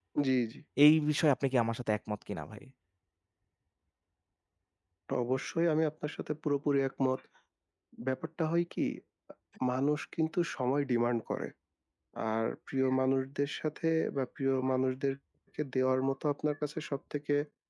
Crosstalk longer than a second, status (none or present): none